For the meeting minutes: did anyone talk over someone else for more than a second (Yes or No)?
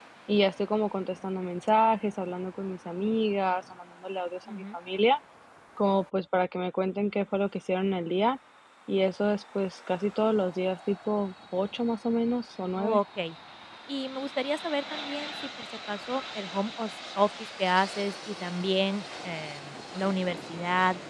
No